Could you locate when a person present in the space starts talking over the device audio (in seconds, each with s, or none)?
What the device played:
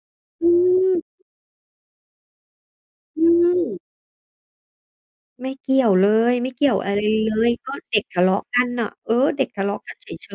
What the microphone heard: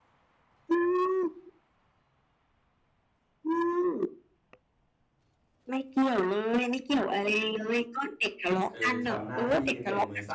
8.7 s